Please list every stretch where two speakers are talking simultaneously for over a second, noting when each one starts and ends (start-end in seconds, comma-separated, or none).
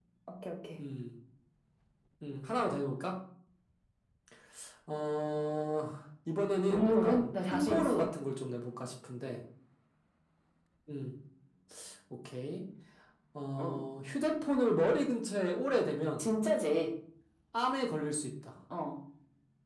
6.7-8.1